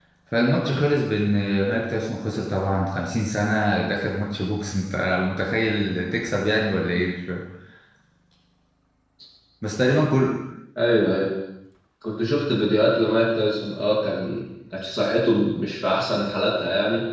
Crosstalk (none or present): none